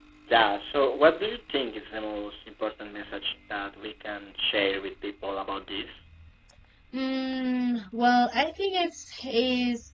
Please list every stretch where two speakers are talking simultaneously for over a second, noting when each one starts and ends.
none

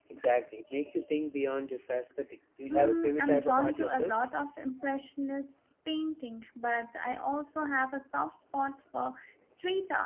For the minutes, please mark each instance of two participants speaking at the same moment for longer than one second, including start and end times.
2.7-4.1

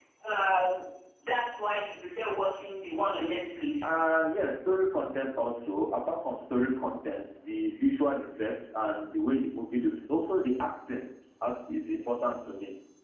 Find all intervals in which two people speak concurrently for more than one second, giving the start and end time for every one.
none

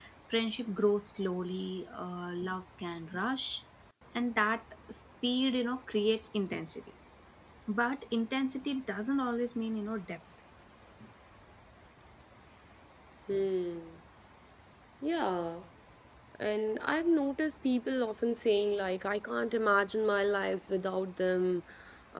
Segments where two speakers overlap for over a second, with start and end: none

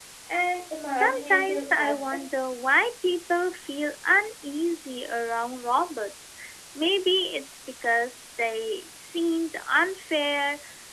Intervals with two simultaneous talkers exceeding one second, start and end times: 0.9-2.5

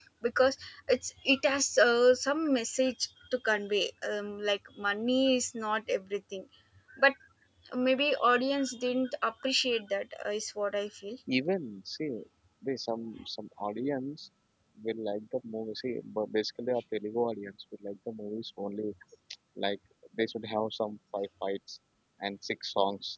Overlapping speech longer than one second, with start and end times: none

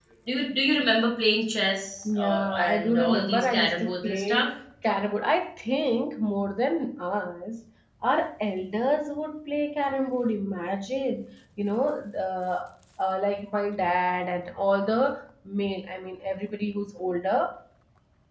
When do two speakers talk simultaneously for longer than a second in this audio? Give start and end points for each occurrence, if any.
2.0-4.5

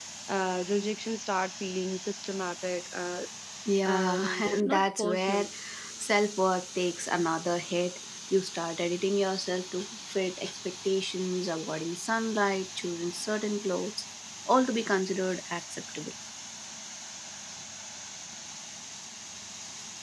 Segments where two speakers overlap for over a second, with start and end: 3.9-5.5

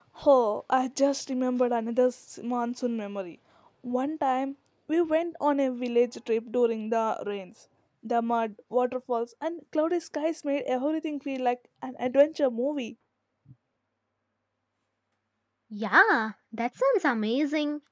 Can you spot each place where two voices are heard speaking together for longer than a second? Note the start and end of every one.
none

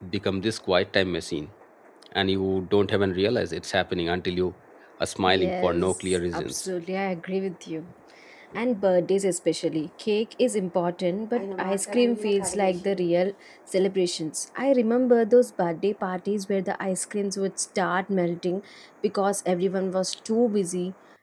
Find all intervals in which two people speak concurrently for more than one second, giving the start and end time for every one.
5.3-6.6

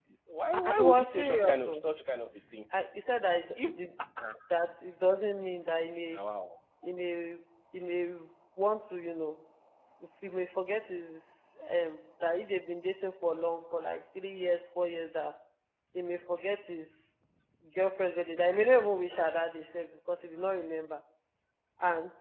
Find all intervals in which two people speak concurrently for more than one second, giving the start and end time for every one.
0.5-1.8

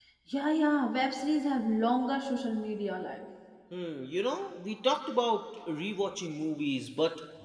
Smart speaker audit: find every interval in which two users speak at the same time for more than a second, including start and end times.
none

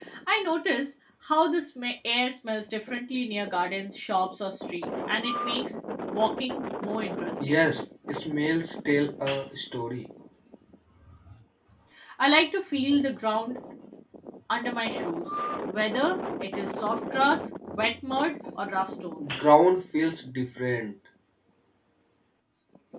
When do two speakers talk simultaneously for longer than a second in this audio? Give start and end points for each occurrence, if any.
none

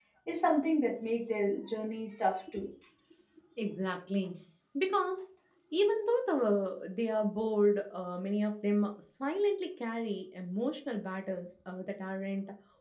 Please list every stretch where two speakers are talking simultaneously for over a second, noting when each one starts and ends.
none

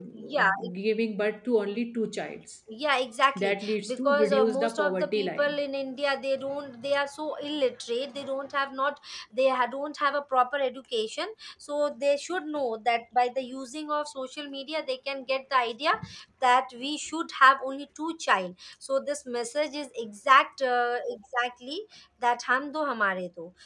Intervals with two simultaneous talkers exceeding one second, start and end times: 3.4-5.5

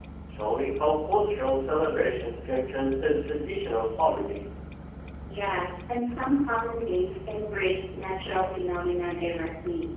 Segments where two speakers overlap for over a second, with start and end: none

